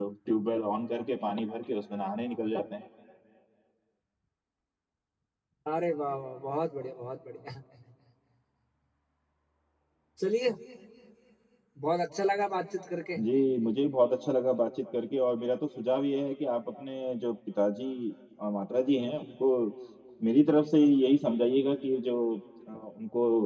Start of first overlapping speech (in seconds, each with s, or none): none